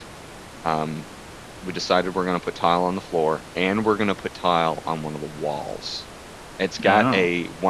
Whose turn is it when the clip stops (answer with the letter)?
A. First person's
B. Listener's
A